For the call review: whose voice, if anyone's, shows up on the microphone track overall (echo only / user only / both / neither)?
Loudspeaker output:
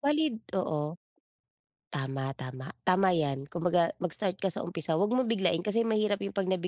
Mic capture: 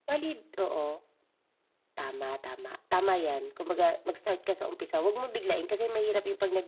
echo only